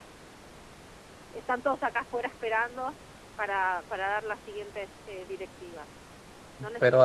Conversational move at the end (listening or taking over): taking over